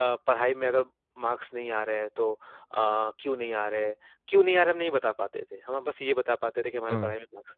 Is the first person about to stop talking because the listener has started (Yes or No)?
No